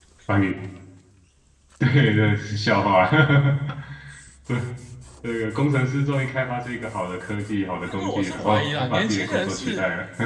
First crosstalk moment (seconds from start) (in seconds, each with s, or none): 7.9 s